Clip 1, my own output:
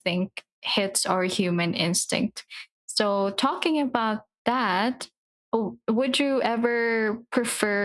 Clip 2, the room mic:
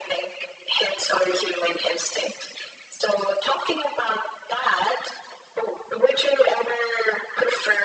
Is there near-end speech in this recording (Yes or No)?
No